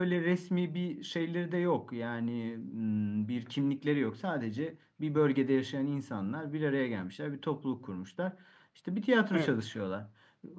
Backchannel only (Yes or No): Yes